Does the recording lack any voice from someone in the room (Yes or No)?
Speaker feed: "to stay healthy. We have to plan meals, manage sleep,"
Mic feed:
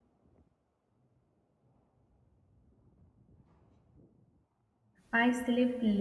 No